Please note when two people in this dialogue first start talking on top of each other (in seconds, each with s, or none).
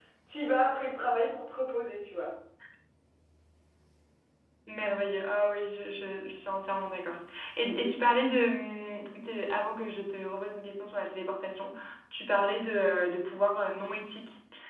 none